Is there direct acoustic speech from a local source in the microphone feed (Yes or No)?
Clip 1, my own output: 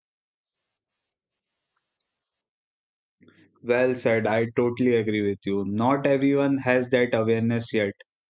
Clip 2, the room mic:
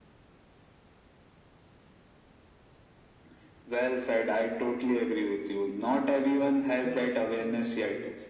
Yes